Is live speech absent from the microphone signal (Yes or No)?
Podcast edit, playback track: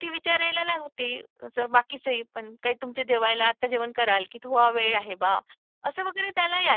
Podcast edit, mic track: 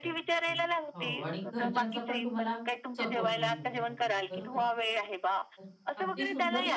No